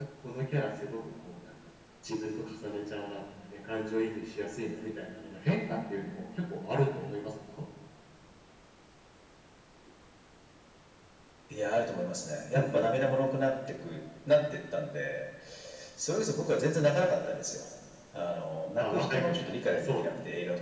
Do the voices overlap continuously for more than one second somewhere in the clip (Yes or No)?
Yes